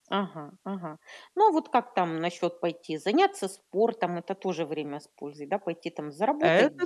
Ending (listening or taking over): taking over